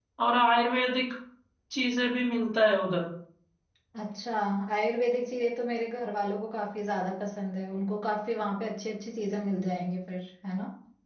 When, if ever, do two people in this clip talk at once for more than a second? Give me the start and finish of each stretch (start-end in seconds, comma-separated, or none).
none